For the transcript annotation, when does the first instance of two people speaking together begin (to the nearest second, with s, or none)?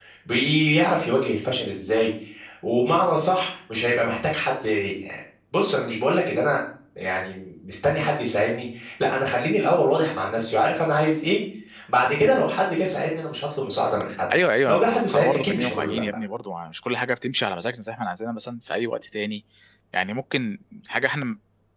15 s